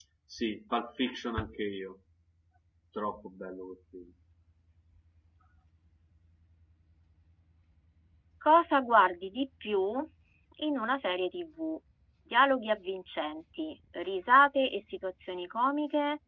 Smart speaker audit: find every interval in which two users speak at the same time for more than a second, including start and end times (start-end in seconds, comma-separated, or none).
none